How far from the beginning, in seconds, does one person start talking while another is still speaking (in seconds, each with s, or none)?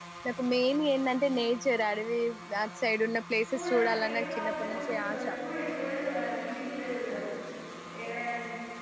3.5 s